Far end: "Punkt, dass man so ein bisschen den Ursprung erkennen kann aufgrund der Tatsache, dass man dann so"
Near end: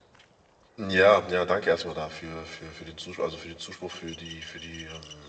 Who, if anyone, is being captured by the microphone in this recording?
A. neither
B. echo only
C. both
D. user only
D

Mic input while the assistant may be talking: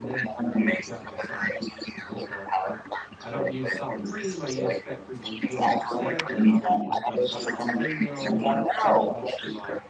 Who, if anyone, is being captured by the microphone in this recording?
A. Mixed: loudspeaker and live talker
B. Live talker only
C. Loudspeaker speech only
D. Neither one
A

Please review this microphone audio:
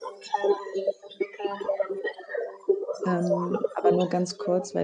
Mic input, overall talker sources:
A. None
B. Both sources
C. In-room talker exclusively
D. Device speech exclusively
B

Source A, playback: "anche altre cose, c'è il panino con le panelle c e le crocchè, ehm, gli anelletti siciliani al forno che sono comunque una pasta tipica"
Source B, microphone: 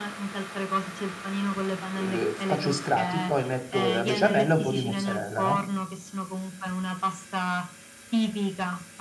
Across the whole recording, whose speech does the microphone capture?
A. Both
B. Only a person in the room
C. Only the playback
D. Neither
A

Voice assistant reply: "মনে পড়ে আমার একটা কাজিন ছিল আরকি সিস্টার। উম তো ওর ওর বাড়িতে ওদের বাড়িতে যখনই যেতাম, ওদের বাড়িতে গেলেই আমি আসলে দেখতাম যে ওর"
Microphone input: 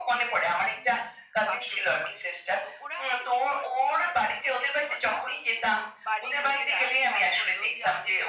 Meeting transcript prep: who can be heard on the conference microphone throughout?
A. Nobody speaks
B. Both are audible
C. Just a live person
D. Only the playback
B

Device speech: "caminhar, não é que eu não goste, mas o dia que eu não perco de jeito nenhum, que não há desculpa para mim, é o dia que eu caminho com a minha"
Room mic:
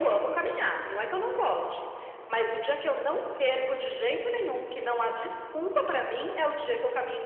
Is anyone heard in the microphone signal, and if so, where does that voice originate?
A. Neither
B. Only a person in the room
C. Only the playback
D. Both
C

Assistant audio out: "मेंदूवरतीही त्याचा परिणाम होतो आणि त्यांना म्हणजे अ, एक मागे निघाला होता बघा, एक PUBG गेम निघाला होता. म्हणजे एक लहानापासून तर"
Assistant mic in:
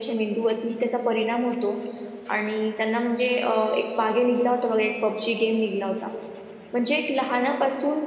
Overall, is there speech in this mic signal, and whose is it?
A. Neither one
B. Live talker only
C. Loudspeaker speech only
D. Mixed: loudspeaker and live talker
C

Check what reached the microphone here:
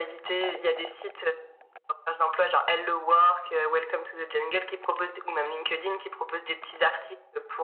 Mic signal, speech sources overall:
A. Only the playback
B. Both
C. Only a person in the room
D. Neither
A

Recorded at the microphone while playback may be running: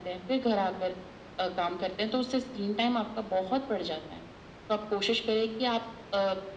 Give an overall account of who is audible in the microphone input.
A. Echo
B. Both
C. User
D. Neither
A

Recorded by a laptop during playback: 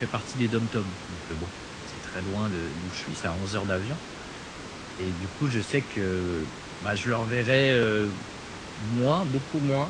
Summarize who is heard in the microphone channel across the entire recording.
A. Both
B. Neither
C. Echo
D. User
D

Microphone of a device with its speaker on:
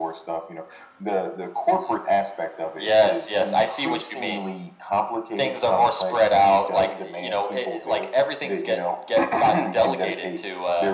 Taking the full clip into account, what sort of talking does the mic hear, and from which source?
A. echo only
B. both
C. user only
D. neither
A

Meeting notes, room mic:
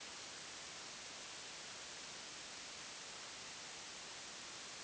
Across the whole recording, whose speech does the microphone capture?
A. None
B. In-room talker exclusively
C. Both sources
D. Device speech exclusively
A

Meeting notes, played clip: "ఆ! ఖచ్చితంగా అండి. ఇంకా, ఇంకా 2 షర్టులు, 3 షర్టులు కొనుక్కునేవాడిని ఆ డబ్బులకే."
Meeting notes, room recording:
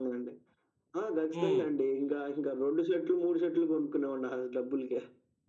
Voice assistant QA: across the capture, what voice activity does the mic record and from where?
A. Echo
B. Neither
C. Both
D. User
C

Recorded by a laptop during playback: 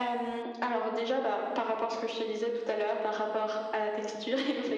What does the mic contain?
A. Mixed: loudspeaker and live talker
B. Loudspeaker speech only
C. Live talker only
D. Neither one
B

